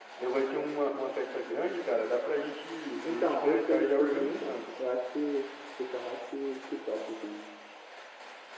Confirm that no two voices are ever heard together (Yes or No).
No